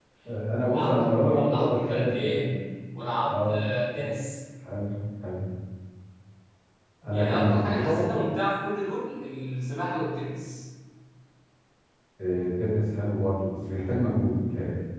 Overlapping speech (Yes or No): Yes